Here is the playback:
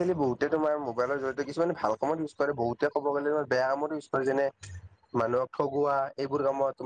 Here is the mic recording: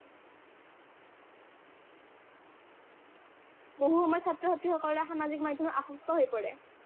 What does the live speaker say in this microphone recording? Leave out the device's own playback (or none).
বহু সময়ত ছাত্ৰ-ছাত্ৰীসকলৰ সামাজিক মাধ্যমত আসক্ত হৈ পৰে।